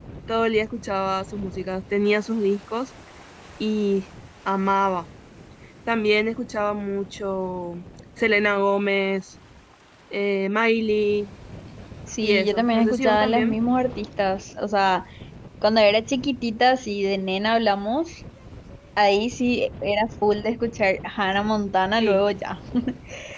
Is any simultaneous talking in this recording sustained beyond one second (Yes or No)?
Yes